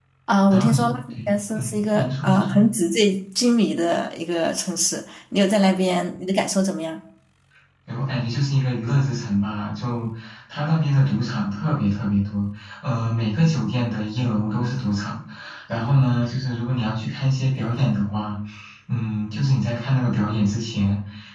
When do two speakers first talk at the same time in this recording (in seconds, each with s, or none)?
0.5 s